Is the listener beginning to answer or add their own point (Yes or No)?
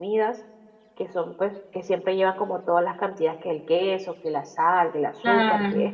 No